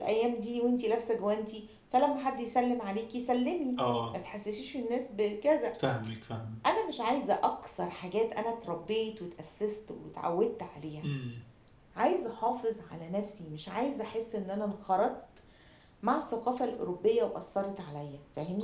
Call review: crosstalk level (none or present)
none